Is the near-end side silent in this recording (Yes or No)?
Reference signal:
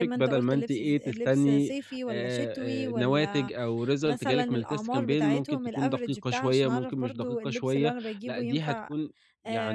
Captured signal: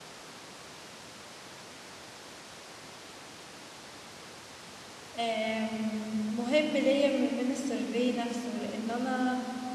No